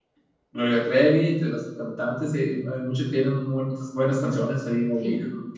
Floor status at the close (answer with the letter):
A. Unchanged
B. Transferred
A